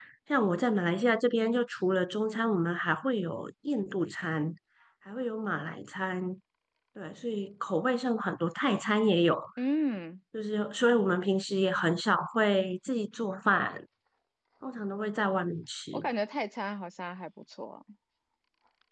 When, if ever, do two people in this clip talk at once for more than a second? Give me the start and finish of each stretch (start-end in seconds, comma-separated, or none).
none